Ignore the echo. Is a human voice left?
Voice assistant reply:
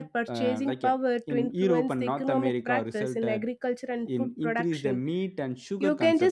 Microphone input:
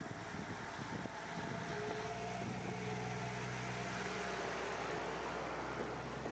No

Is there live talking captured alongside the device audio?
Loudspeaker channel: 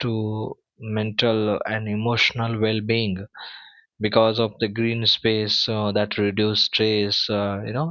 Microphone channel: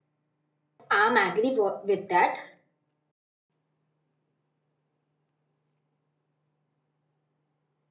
Yes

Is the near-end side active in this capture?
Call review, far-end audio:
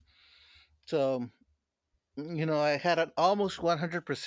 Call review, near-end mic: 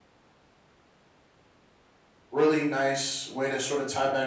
Yes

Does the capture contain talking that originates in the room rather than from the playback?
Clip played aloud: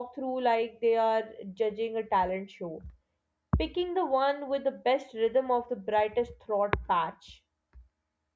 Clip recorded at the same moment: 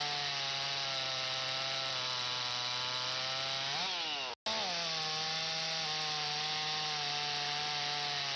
No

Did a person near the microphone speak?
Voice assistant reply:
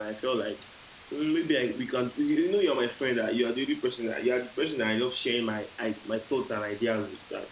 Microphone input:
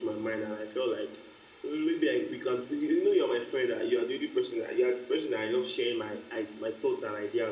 No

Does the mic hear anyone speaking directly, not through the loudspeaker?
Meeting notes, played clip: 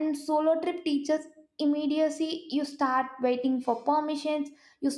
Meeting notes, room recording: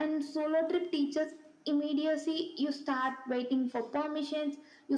No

